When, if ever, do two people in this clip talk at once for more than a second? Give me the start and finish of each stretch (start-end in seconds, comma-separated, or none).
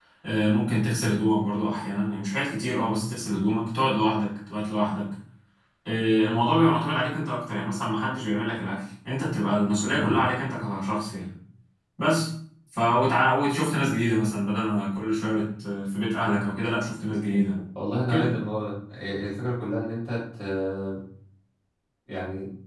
none